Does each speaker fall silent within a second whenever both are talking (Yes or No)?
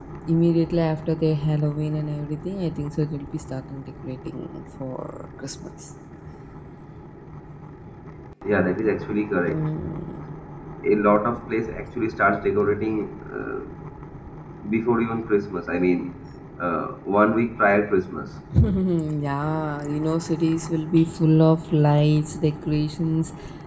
Yes